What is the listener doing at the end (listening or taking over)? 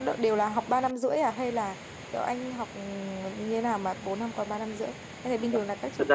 taking over